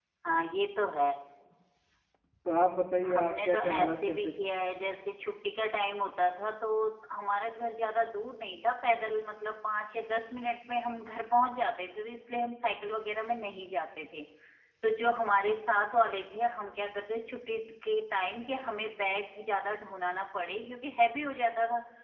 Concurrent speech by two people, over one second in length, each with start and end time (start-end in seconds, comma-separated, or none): 3.0-4.5